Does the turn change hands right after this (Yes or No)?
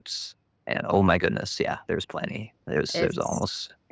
Yes